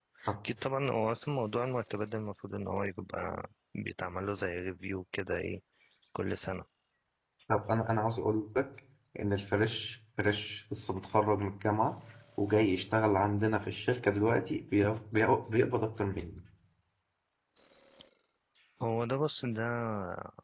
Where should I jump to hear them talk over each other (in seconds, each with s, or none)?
none